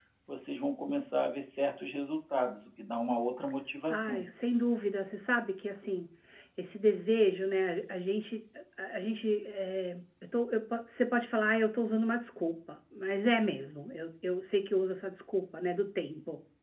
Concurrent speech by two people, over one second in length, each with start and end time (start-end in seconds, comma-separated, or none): none